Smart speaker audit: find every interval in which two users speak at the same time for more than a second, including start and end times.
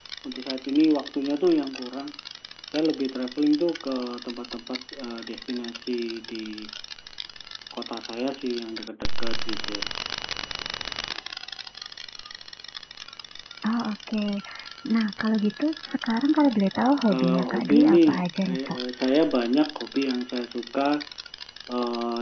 17.1-18.8

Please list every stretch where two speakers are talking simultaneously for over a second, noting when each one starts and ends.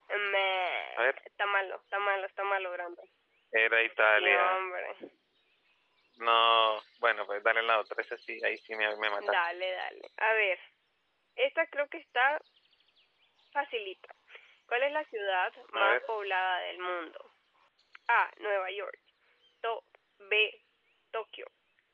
none

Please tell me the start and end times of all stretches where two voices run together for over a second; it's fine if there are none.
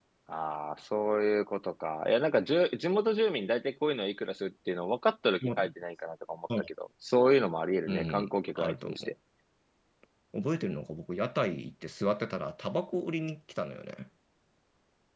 7.9-9.1

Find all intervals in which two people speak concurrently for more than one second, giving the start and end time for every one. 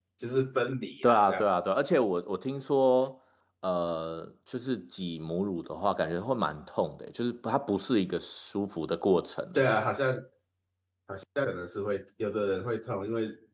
none

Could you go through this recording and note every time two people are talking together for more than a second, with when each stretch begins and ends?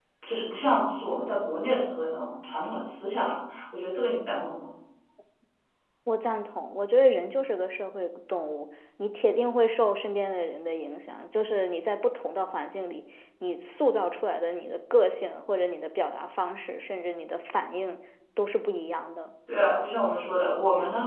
none

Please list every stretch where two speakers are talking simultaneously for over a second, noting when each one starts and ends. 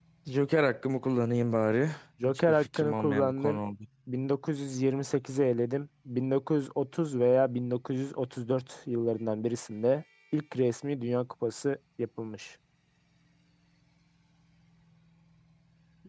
2.3-3.6

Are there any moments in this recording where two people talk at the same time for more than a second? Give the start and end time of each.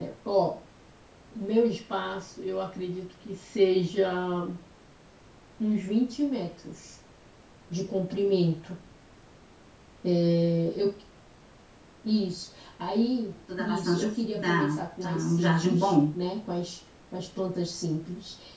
13.6-15.9

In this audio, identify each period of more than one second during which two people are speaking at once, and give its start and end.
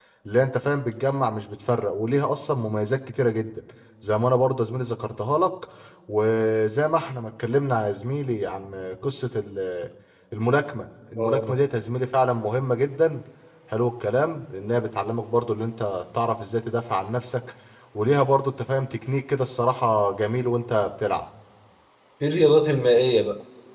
none

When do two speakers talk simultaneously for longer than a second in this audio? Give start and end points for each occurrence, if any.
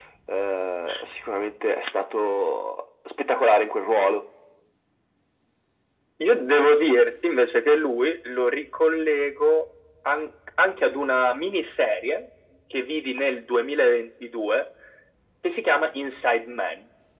none

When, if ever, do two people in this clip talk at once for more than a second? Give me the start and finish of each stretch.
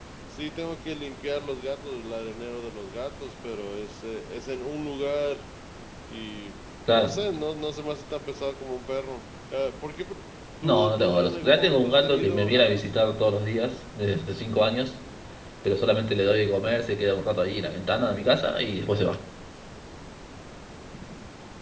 10.6-12.9

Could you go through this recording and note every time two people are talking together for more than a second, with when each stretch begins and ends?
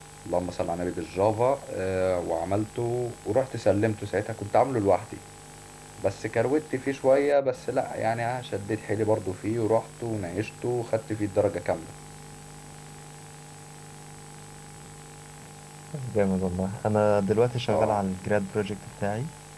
none

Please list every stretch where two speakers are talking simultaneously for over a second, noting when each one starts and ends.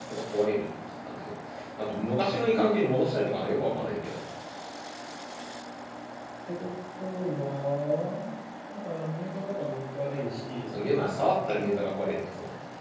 none

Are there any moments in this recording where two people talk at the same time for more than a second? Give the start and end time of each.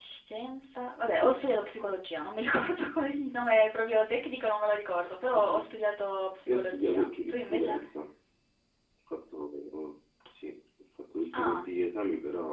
6.5-7.8

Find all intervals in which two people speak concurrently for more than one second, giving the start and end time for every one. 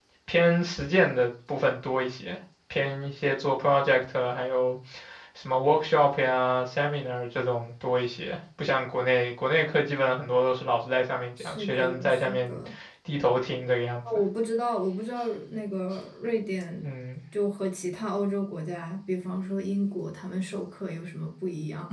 11.4-12.6

